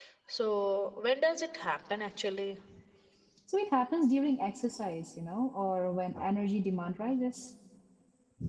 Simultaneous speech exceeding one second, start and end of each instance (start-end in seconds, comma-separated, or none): none